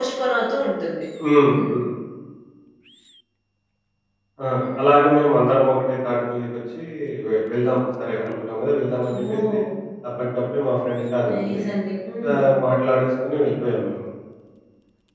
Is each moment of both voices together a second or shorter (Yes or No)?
Yes